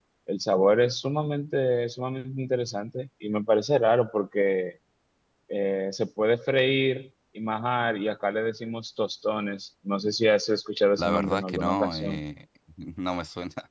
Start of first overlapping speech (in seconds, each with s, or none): 11.0 s